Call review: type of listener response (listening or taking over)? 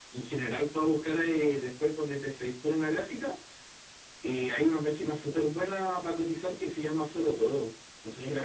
taking over